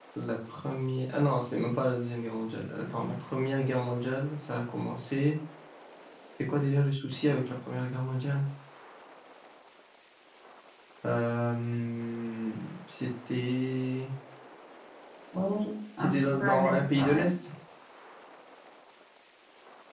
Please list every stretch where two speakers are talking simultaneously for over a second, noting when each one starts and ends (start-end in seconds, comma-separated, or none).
16.0-17.2